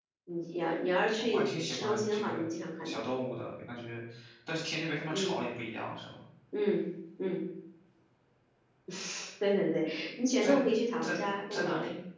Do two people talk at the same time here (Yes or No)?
Yes